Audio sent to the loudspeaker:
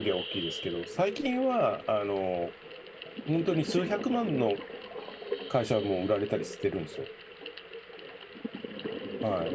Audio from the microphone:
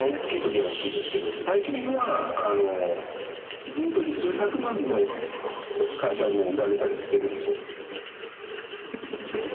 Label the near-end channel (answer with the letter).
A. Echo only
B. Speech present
A